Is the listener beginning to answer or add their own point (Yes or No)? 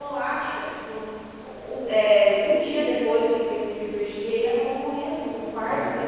No